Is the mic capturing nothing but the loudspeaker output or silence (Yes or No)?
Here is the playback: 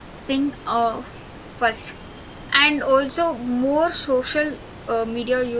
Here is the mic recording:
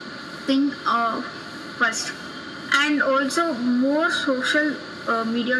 Yes